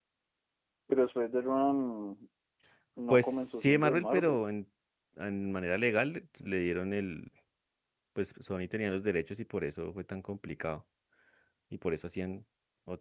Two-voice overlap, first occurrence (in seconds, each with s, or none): 3.1 s